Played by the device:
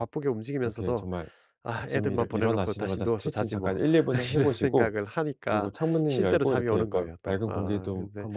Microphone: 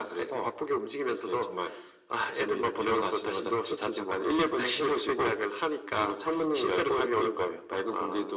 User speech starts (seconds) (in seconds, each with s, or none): none